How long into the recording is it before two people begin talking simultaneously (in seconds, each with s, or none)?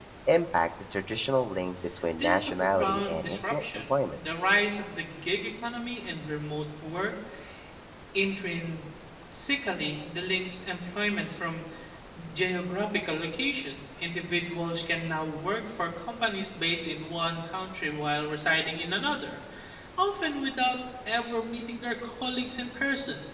2.2 s